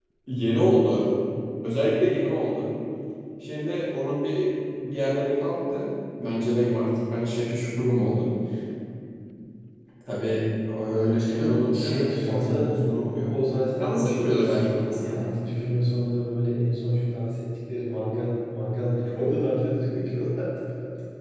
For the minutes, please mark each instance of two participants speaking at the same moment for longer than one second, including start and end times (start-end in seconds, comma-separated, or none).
11.3-12.7, 13.8-15.2